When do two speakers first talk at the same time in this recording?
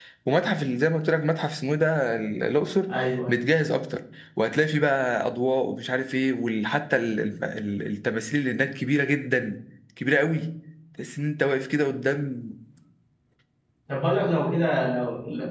none

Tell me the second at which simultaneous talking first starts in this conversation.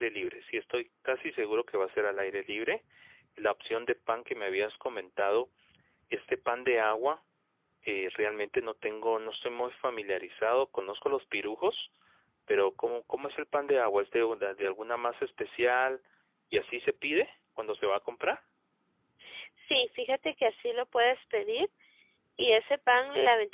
none

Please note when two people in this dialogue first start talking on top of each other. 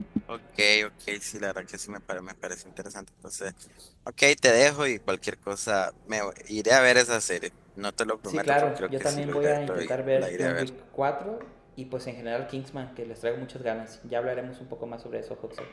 8.2 s

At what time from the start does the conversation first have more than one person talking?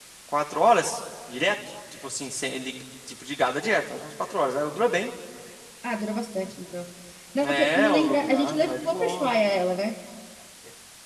7.4 s

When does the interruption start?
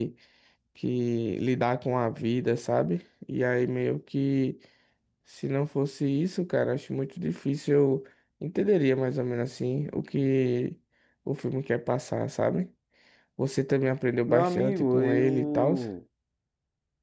14.3 s

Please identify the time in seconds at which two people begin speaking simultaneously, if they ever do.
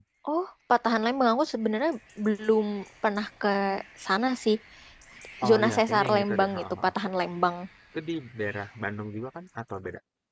5.5 s

